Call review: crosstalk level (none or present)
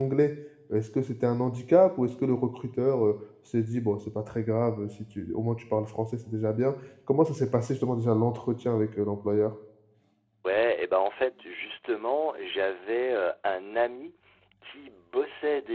none